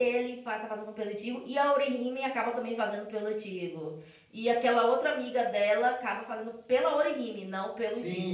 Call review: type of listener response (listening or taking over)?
taking over